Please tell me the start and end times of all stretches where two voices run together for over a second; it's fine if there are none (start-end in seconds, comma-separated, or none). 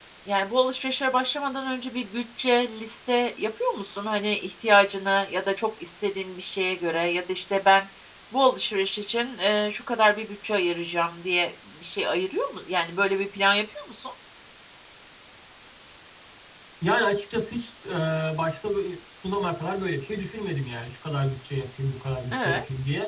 none